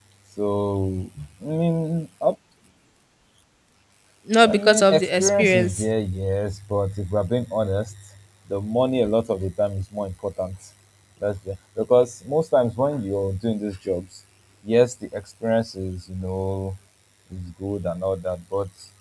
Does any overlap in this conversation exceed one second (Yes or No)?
Yes